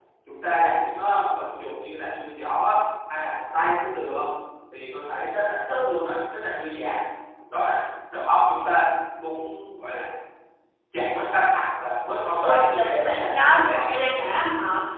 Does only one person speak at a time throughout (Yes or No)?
No